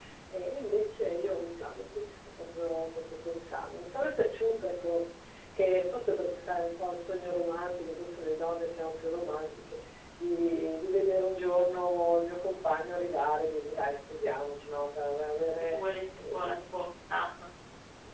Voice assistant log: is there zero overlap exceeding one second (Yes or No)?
Yes